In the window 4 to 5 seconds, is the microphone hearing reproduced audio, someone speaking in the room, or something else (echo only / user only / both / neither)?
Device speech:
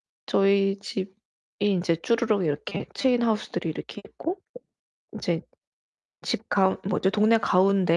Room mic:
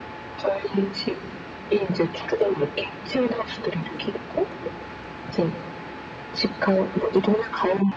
echo only